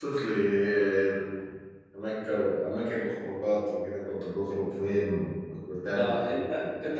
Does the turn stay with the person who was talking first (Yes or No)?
No